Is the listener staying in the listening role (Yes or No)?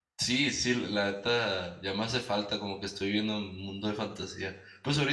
Yes